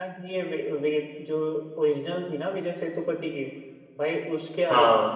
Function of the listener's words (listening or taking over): listening